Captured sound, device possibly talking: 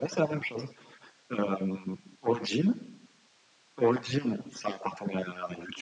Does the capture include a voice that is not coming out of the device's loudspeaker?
No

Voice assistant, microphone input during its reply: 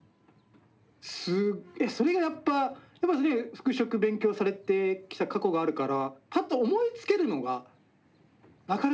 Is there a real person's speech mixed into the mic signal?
No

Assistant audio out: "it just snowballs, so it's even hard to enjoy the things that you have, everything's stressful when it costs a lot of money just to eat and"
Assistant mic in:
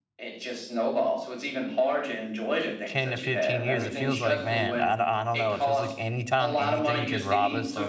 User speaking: Yes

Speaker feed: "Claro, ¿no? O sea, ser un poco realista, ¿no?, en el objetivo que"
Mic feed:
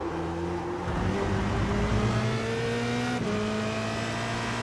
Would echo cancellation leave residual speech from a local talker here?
No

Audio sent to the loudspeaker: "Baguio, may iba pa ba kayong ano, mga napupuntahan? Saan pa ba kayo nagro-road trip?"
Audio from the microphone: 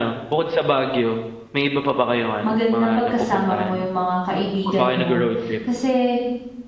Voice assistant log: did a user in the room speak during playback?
Yes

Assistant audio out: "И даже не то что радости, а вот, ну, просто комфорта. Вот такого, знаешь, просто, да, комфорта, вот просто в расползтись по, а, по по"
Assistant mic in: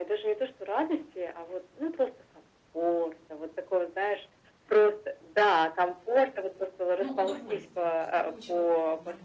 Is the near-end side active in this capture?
Yes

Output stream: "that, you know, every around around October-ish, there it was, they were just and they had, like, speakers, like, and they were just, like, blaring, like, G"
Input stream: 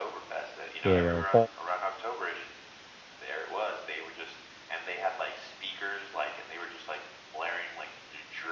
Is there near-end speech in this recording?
Yes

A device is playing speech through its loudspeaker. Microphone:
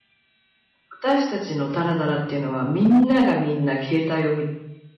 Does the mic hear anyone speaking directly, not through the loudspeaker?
Yes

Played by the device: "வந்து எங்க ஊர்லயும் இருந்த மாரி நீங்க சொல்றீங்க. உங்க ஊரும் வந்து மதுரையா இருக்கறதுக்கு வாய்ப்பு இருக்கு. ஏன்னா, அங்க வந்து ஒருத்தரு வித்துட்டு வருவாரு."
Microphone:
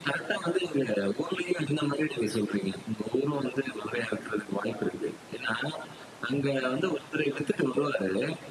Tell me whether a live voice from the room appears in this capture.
No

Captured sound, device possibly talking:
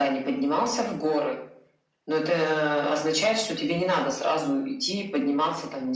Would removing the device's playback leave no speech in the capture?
Yes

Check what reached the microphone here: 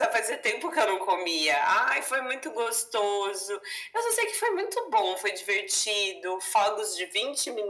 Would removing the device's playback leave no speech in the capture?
Yes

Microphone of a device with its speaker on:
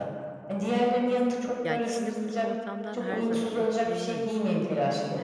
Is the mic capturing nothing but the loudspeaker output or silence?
No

